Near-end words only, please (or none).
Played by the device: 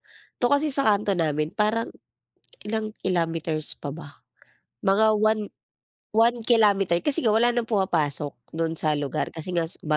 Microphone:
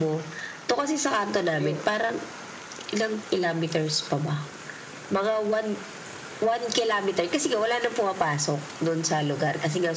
Bagyo.